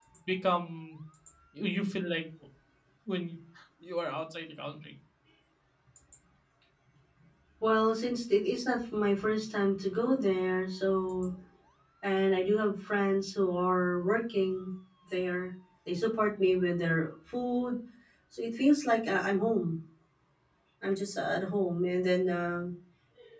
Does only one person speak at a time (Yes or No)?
Yes